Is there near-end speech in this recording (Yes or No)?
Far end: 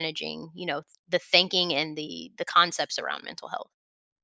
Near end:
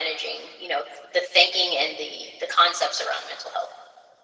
No